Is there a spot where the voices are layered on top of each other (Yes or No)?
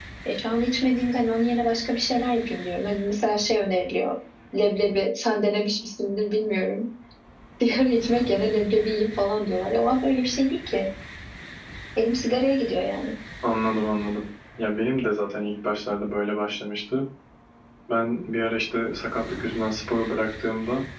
No